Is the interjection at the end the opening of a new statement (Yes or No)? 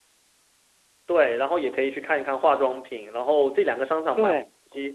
No